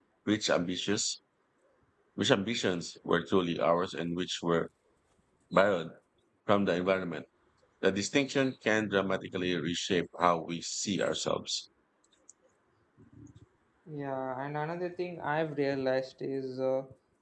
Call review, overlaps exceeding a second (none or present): none